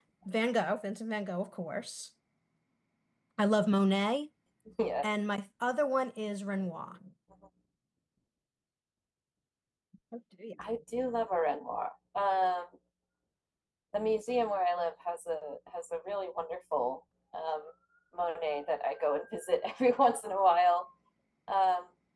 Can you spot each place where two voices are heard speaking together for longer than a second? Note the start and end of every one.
none

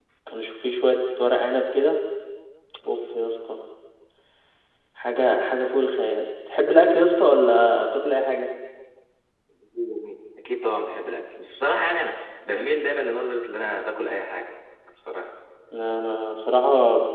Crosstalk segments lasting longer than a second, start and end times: none

